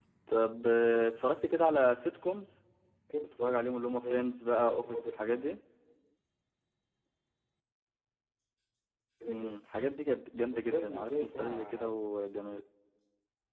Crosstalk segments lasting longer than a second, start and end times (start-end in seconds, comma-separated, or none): 3.2-5.2, 10.5-12.0